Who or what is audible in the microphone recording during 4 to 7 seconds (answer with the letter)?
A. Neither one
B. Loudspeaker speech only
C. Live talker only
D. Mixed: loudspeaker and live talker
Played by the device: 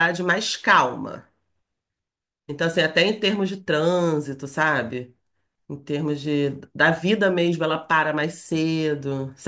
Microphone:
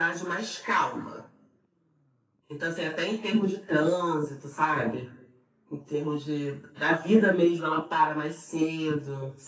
B